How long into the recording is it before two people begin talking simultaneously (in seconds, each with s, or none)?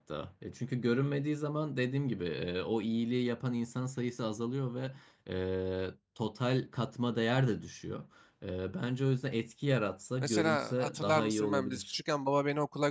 10.2 s